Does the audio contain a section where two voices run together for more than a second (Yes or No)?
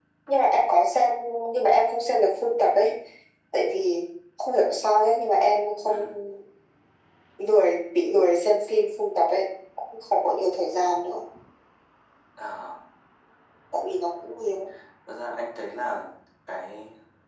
No